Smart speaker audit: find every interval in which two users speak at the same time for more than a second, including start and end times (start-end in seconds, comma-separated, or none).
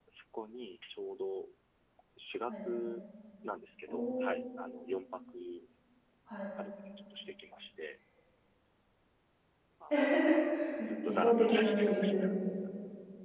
11.1-12.3